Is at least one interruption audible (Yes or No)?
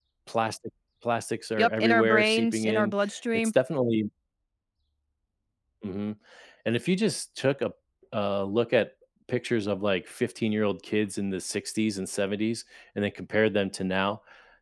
Yes